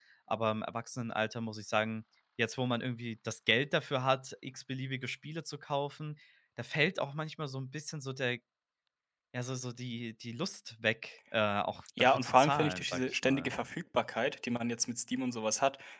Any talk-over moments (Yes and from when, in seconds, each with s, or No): Yes, from 12.0 s